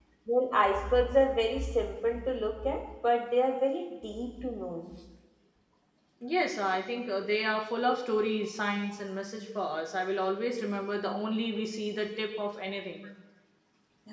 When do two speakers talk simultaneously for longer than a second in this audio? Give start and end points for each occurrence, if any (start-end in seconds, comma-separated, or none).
none